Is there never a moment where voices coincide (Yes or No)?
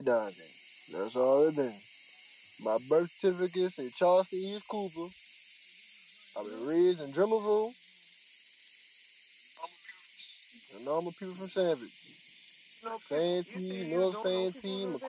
No